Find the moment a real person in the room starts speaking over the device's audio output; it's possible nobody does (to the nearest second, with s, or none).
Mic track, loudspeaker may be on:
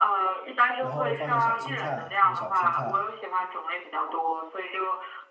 1 s